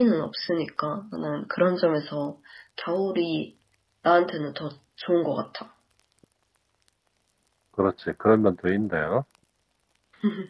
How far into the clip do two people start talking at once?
none

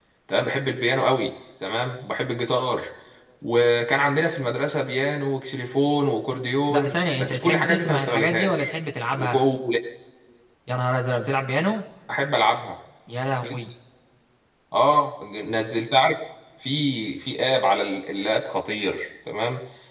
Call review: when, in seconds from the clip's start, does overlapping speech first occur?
6.7 s

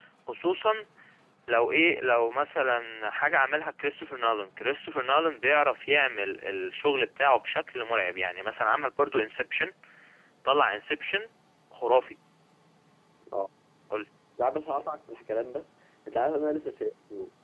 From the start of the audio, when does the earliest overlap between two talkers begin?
none

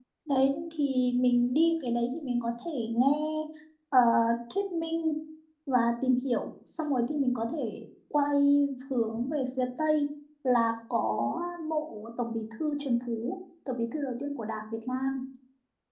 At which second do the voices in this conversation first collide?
none

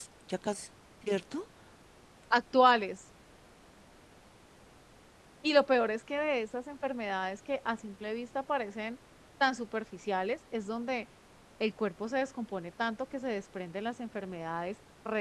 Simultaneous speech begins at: none

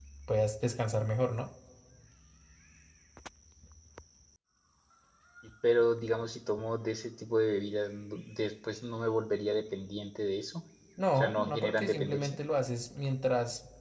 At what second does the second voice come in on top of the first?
11.0 s

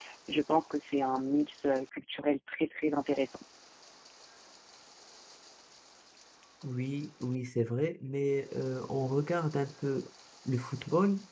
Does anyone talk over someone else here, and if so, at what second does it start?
none

